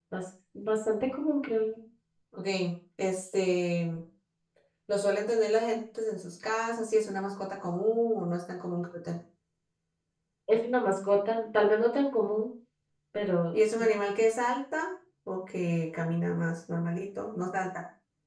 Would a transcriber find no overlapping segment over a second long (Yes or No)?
Yes